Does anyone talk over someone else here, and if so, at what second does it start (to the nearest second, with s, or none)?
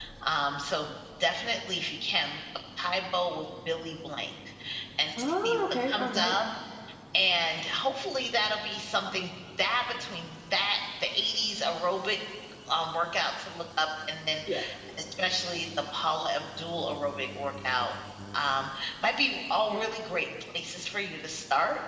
5 s